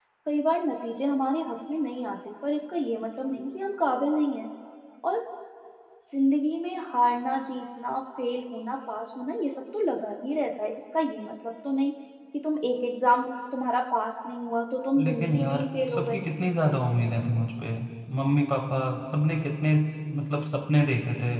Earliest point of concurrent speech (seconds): 15 s

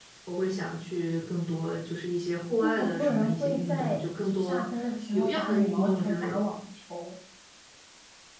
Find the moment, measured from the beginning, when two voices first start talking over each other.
3 s

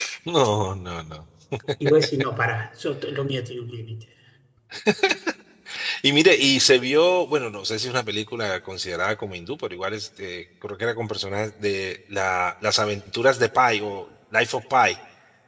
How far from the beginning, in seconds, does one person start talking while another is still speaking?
none

